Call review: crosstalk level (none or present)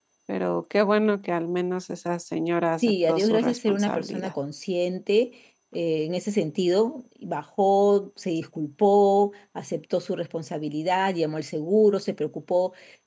present